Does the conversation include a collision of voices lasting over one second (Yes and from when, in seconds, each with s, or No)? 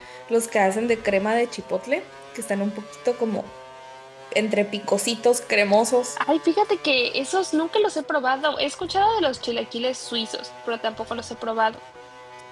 No